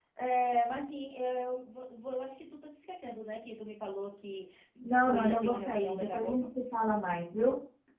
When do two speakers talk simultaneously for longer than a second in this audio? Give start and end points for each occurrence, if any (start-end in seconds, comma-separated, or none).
5.0-6.4